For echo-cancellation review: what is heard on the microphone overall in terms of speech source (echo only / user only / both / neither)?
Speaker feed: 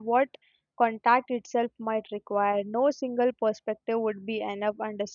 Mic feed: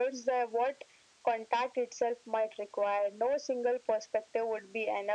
echo only